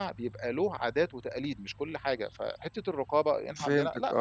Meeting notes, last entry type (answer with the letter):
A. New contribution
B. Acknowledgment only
A